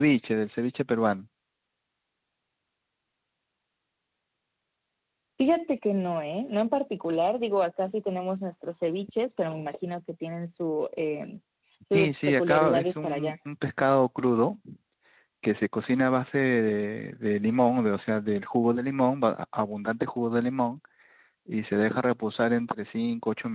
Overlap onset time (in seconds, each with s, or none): 11.9 s